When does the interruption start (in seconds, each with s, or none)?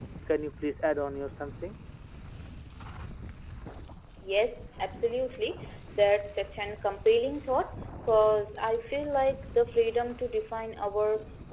none